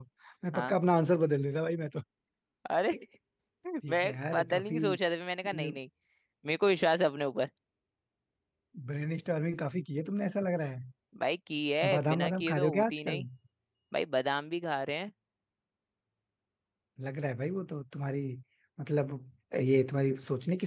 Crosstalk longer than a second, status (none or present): present